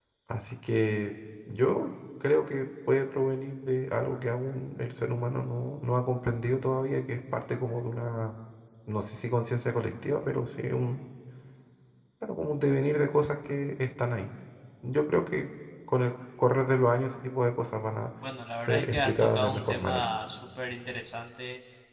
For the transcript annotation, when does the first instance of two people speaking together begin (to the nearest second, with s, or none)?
19 s